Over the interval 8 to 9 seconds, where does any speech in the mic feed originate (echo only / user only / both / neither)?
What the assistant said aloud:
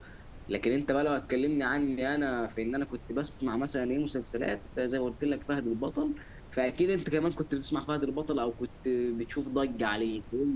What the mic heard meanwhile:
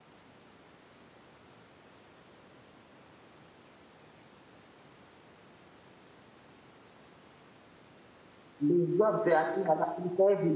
user only